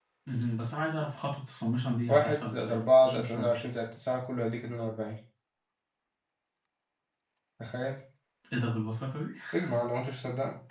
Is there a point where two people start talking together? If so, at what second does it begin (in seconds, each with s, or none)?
2.1 s